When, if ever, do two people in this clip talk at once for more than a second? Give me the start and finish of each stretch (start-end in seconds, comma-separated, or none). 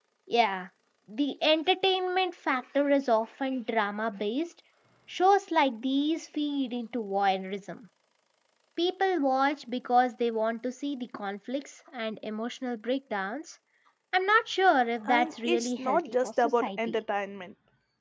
15.1-17.0